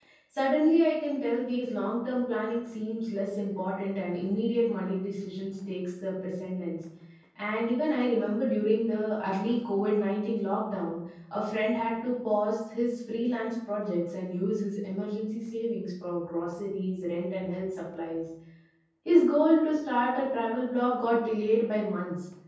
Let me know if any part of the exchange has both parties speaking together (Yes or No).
No